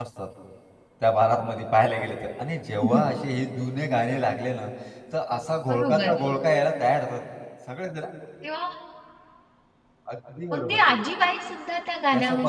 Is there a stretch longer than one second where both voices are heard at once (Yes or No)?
No